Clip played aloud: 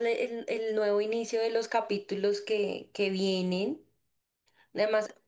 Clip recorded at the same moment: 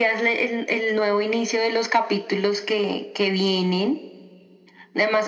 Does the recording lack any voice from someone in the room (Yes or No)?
Yes